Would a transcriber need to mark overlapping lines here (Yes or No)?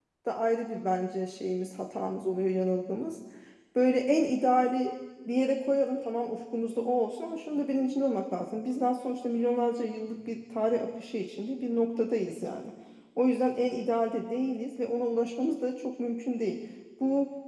No